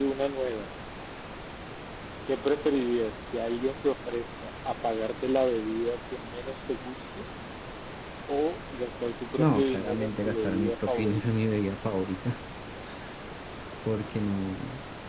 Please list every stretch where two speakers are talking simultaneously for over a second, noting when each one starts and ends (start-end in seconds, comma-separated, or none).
9.4-11.2